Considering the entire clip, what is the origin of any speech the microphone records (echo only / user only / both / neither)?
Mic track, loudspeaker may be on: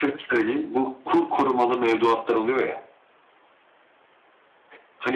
echo only